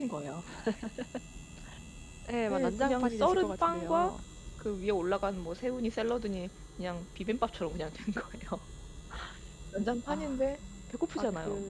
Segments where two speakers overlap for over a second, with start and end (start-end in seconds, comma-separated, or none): 2.5-4.1